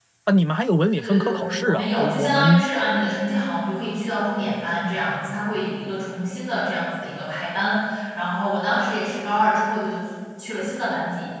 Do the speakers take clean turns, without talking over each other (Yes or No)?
No